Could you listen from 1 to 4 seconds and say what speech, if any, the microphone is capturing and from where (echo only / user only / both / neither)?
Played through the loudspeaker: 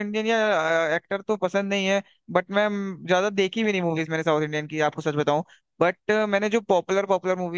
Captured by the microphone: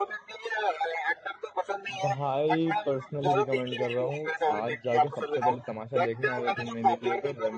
both